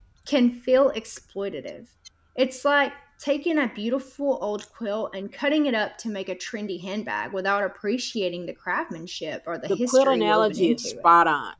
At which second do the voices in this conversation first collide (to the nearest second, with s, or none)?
10 s